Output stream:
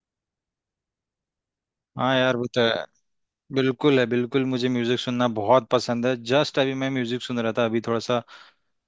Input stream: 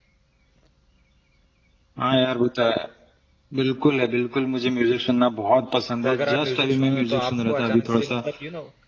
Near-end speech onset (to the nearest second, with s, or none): 6 s